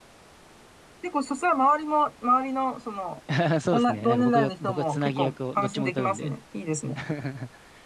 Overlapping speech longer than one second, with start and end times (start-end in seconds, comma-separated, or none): 3.7-6.3